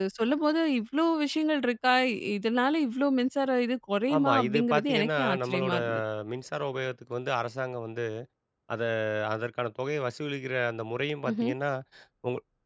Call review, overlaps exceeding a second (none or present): present